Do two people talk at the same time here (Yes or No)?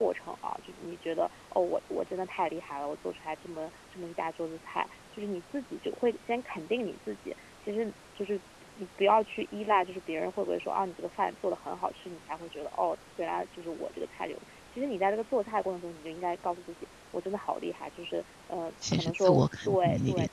Yes